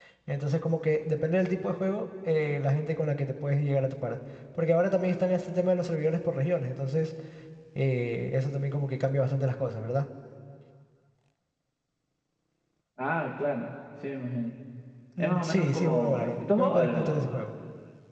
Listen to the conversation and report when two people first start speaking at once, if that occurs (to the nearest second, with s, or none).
15 s